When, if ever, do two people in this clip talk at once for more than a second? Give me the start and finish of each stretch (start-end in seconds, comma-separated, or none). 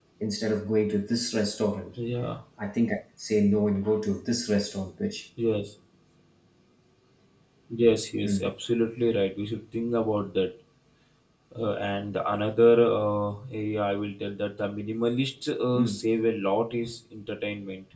none